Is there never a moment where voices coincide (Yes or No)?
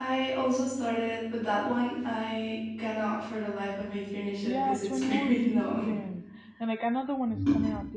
No